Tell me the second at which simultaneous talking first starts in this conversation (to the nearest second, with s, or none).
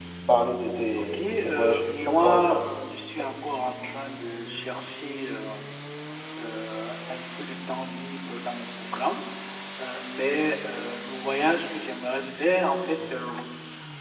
1 s